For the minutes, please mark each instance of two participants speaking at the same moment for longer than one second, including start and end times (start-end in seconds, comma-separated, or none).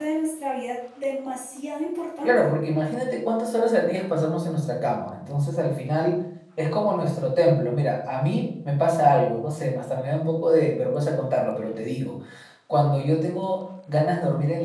none